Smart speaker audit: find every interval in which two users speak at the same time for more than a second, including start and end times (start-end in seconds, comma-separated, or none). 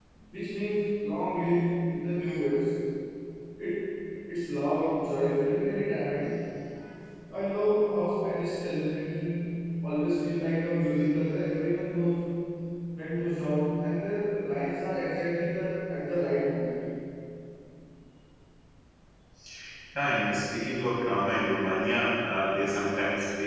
none